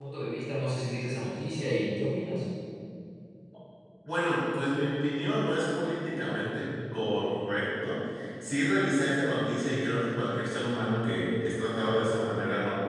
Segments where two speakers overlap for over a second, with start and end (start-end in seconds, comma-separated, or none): none